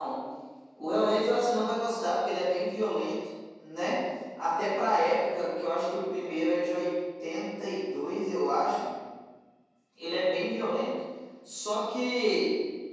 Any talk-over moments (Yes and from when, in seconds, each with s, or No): No